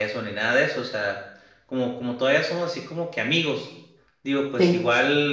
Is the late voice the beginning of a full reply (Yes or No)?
No